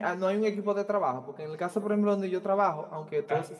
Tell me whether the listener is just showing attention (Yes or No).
Yes